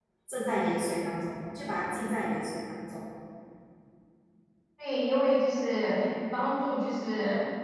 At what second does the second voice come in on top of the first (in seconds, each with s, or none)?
none